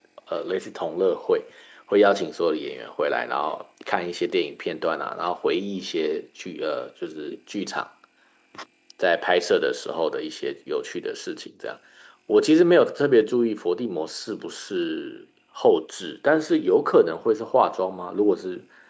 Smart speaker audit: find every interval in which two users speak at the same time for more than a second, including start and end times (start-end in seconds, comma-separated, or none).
none